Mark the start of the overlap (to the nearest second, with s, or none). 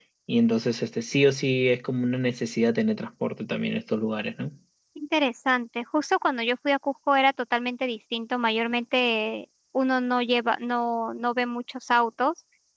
none